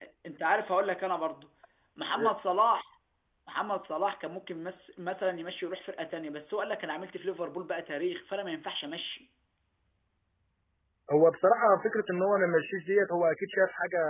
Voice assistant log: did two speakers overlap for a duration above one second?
No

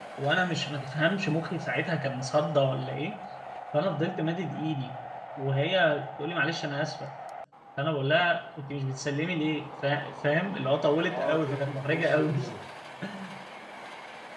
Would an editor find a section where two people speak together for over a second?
Yes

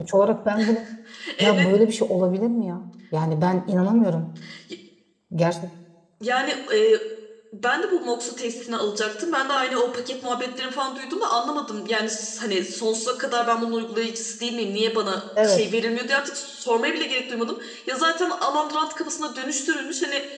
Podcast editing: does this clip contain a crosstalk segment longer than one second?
No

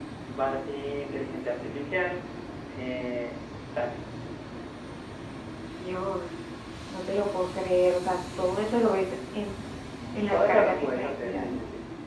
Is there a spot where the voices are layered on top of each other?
Yes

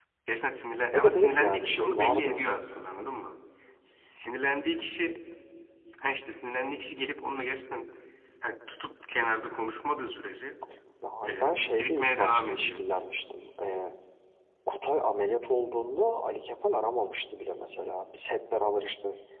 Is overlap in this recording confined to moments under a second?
No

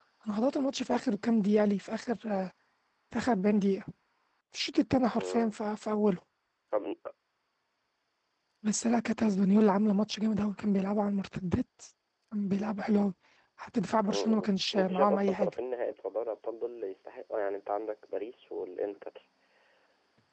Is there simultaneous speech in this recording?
Yes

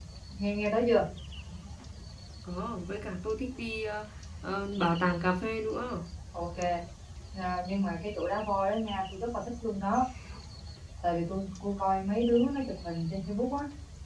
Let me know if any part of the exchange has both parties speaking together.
No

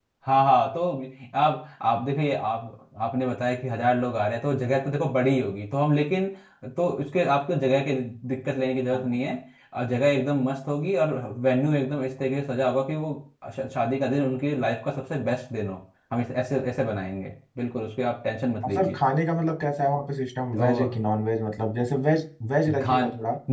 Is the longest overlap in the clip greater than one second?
No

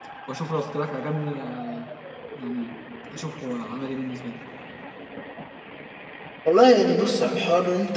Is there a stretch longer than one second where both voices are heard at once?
No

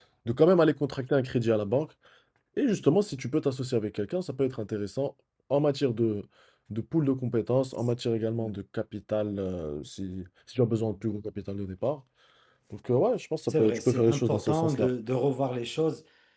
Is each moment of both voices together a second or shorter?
No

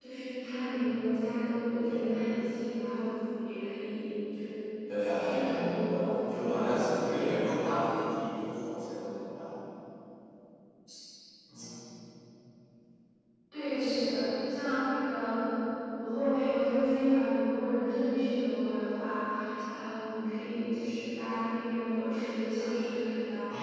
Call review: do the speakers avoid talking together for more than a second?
No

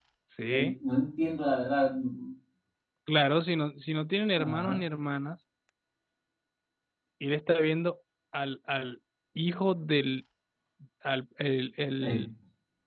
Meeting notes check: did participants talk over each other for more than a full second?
No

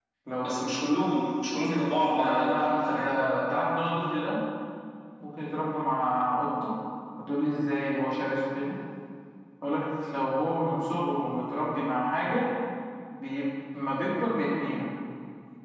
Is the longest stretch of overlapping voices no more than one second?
No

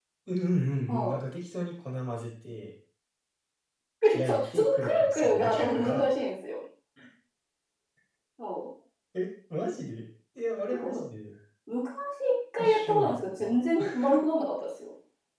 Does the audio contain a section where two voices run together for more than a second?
Yes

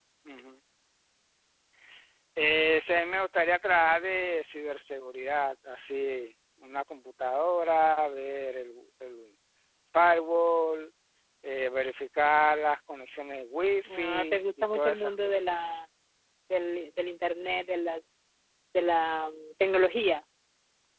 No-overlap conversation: No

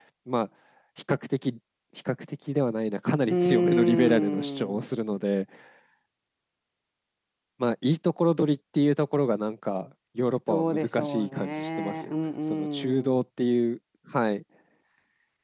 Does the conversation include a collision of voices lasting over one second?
Yes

